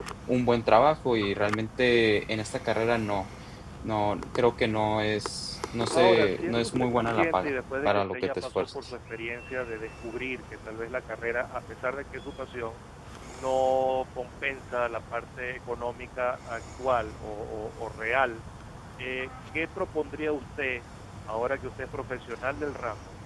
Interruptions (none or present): present